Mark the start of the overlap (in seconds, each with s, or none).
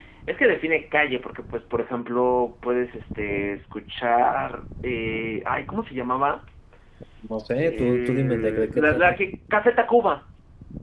7.6 s